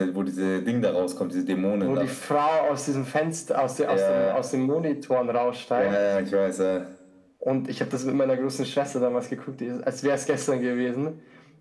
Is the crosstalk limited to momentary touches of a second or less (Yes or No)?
Yes